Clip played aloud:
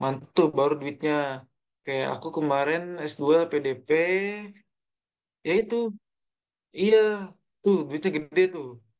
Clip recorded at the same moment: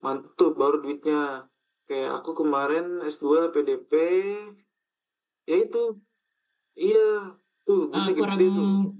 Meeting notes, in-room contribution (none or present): present